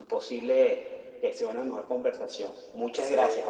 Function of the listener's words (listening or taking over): taking over